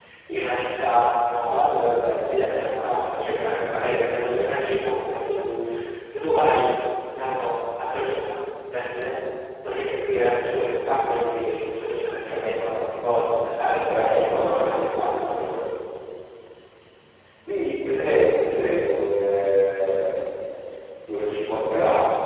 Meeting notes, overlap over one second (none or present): present